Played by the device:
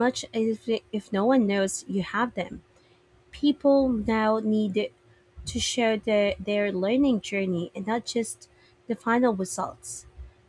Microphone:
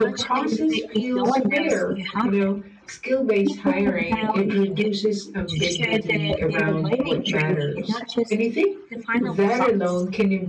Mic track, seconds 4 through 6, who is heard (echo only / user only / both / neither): both